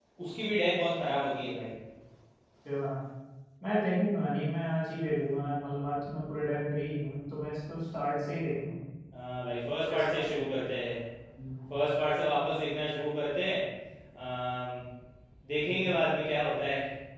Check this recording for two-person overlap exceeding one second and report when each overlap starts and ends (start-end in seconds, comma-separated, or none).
none